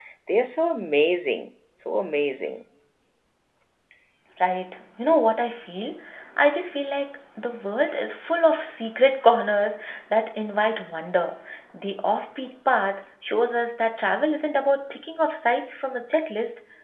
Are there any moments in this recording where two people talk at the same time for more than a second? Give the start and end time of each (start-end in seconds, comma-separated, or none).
none